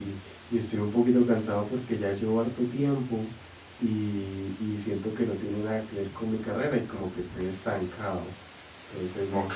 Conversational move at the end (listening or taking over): taking over